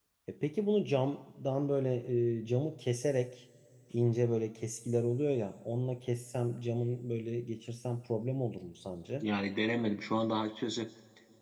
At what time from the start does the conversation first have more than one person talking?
none

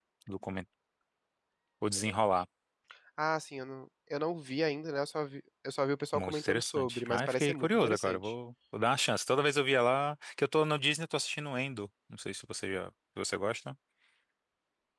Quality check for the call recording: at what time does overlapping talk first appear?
6.1 s

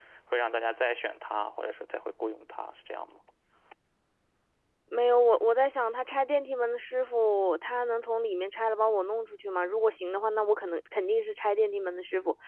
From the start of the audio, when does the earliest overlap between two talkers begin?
none

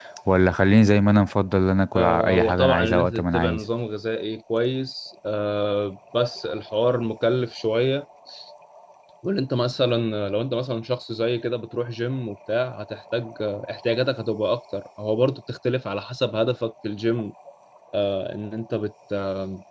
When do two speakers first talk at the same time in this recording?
1.9 s

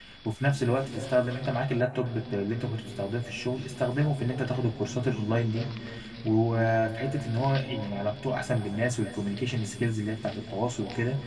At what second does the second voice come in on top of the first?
none

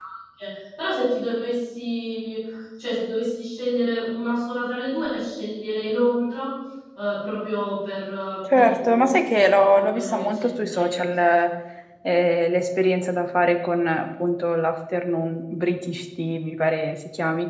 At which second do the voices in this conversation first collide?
8.5 s

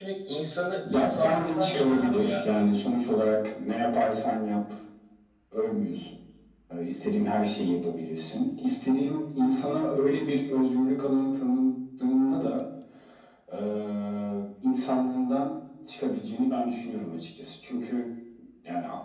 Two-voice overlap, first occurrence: 0.9 s

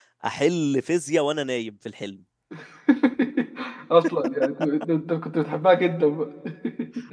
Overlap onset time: none

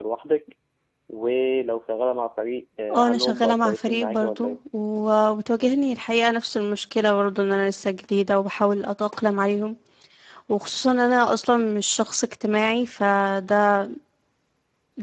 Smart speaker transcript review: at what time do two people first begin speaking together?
2.9 s

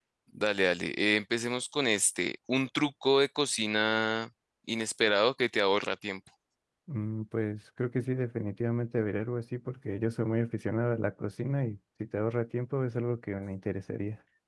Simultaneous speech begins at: none

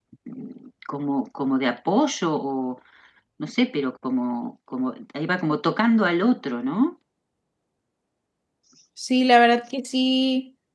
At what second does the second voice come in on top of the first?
none

